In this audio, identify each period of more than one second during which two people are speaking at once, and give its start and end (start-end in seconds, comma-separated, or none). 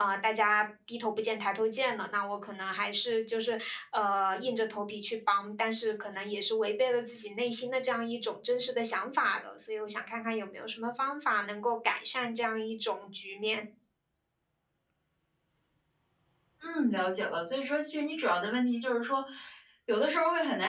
none